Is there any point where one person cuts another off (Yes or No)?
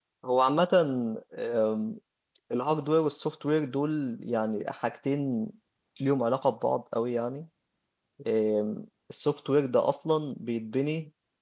No